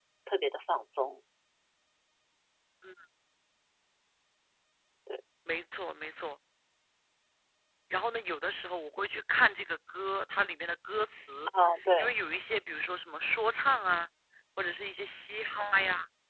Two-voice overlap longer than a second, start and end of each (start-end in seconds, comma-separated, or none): none